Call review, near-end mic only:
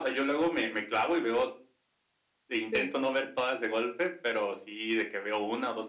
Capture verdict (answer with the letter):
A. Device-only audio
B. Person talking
B